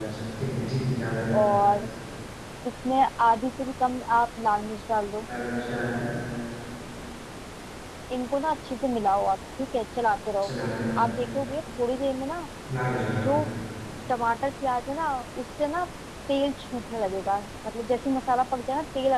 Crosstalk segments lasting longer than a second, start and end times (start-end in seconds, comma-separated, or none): none